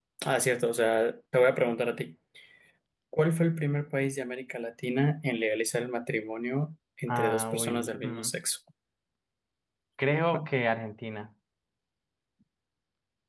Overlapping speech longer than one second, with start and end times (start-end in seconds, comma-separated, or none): 7.1-8.3